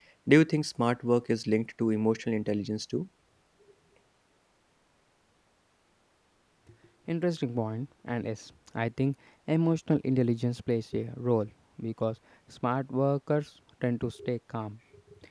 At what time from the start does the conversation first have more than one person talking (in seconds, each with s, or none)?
none